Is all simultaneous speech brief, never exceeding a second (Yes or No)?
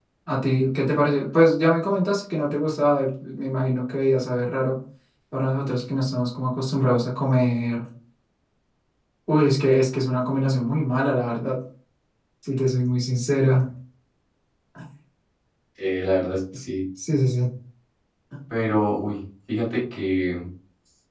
Yes